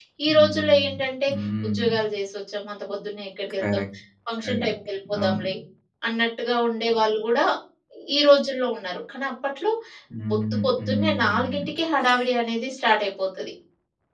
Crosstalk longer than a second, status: present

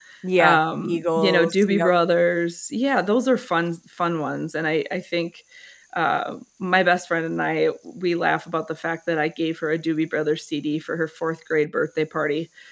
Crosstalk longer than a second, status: present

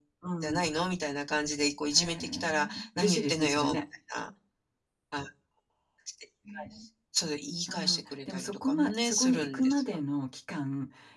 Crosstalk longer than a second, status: present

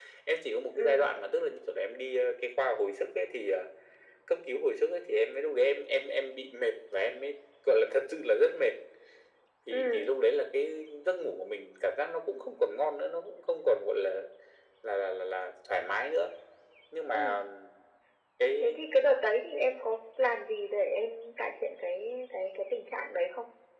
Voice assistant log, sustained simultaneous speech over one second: none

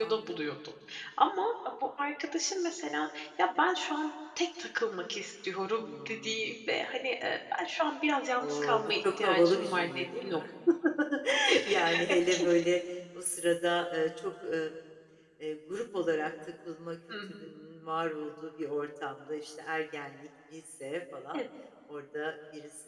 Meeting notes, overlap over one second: present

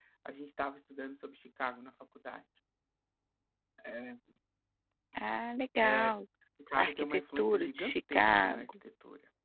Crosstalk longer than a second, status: present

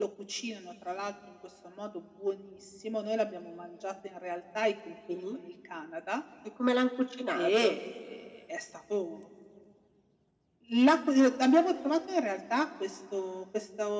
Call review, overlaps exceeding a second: none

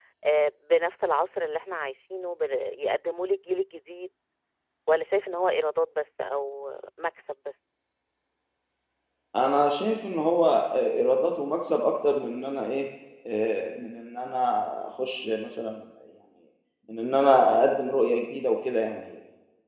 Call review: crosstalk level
none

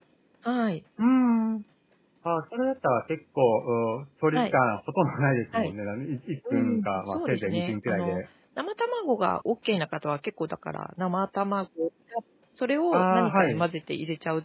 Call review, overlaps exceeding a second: present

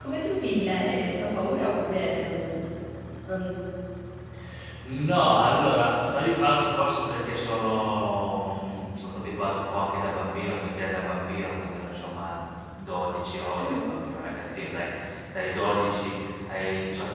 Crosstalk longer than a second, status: none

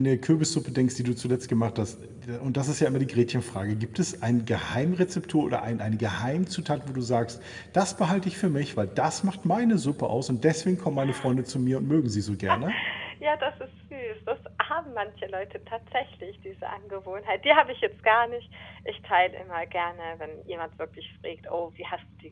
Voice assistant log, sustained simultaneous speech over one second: none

